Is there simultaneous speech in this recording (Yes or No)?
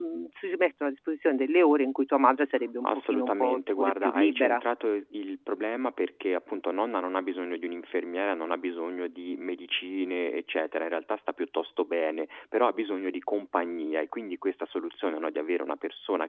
Yes